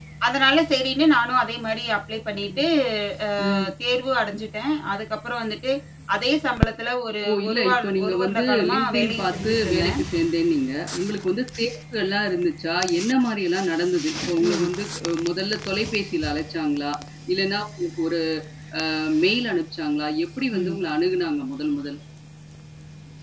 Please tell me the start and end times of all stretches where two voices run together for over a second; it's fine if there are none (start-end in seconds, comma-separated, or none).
7.2-10.0